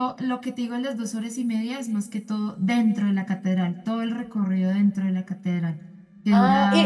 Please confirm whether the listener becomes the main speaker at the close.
Yes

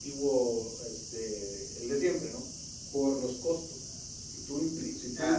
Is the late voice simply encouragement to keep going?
Yes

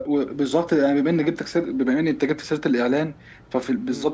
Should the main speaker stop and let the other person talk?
No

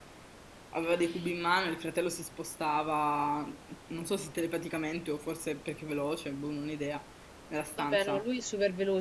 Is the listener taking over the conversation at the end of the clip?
Yes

